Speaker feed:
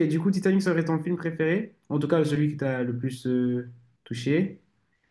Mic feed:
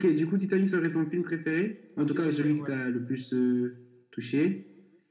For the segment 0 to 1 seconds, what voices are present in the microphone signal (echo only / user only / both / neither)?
echo only